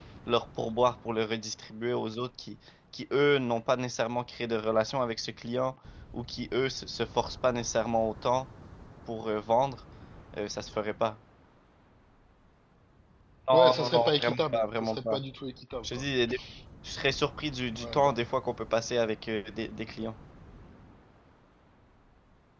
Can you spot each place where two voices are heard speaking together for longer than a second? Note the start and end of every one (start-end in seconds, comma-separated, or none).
13.5-15.2